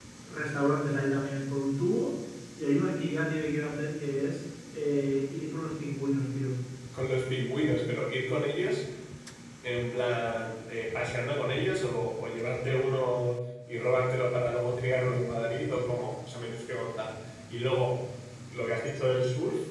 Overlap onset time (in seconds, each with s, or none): none